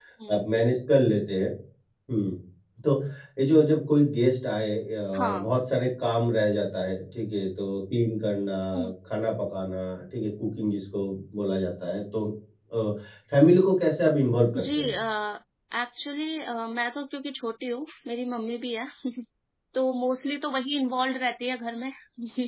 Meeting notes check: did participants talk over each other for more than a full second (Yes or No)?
No